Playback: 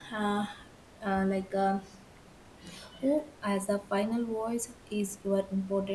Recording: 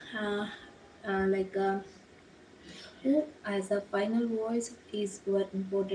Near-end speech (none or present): none